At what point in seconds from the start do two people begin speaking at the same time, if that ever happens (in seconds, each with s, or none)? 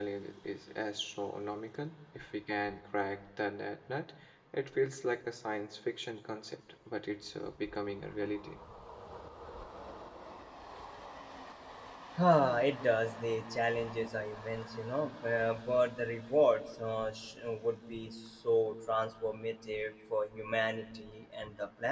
none